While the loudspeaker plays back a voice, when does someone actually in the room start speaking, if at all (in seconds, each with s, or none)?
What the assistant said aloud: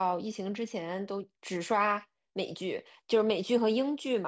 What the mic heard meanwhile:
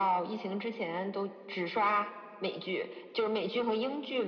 none